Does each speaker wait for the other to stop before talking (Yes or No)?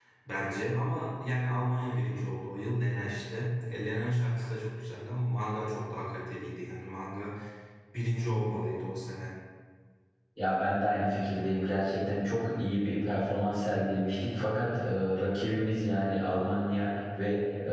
Yes